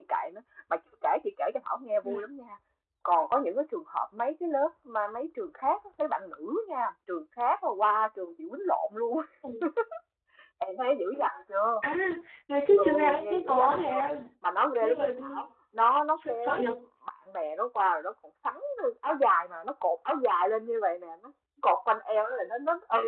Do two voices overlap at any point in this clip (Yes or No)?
Yes